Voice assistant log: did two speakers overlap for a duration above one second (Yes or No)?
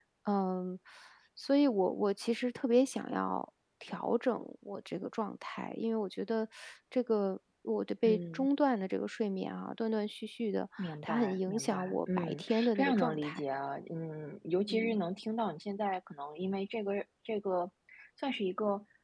Yes